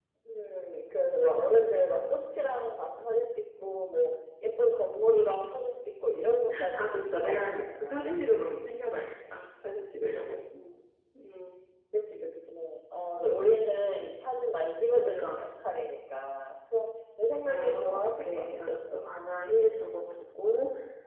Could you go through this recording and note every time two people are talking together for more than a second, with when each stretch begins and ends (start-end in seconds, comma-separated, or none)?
6.7-8.2, 17.4-19.1